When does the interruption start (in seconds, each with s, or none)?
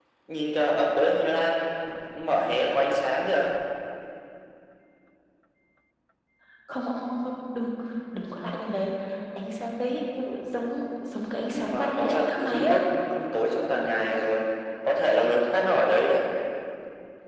11.5 s